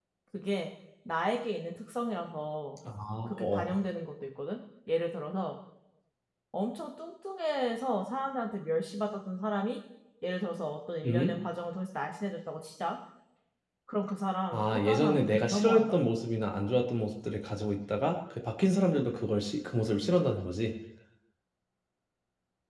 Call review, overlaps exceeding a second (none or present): present